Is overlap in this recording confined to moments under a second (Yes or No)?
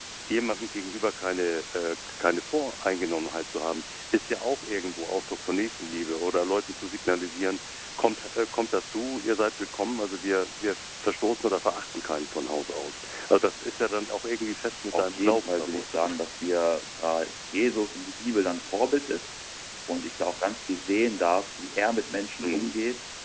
No